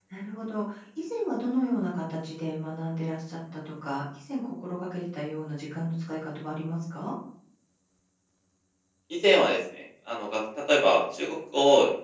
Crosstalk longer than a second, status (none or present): none